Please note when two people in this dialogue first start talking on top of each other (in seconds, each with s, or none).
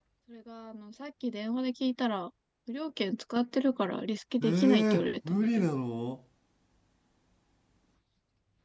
4.4 s